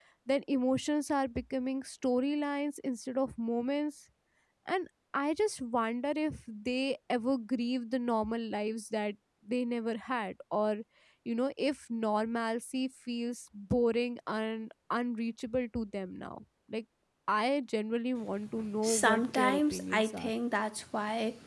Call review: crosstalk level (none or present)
present